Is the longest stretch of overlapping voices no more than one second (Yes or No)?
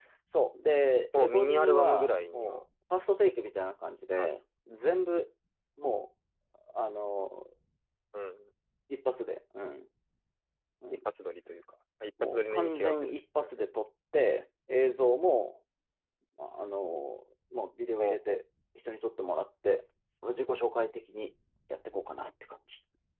No